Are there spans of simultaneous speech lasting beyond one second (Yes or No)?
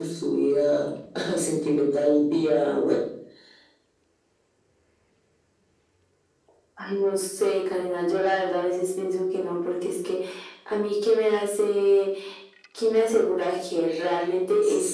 No